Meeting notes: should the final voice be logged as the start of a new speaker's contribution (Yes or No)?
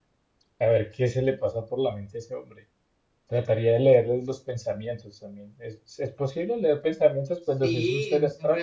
Yes